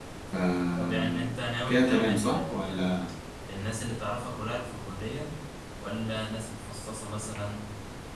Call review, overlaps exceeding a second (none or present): present